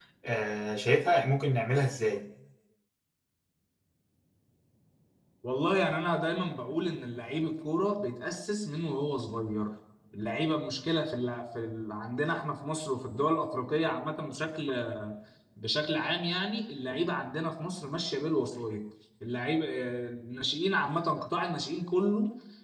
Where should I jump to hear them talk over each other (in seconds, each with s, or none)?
none